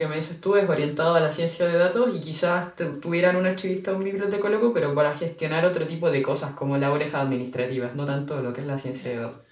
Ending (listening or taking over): taking over